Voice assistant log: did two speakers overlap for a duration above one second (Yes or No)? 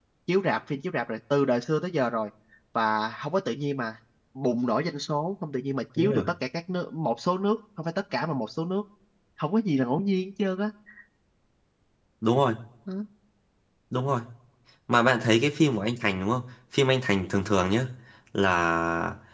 No